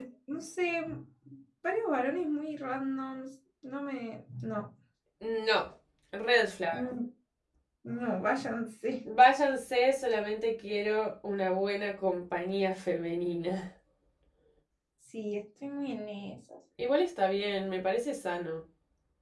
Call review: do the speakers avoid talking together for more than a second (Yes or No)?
Yes